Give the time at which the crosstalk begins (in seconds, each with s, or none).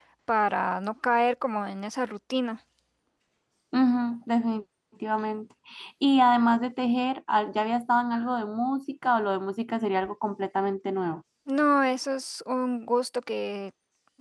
none